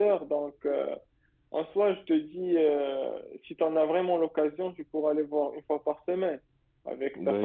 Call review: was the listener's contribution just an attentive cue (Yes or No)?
No